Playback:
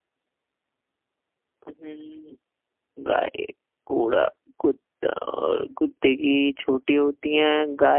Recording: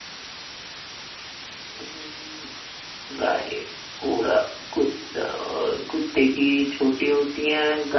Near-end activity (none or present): none